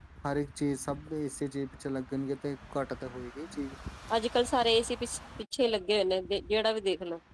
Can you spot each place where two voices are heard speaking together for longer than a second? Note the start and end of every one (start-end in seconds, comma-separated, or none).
none